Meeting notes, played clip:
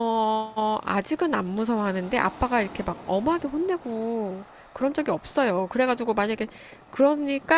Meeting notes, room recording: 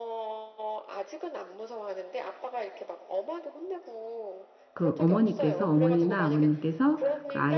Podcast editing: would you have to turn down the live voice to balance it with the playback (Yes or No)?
Yes